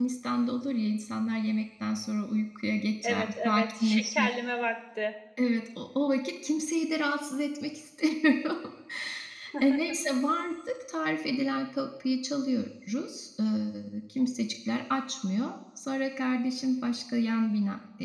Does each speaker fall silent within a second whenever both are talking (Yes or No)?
No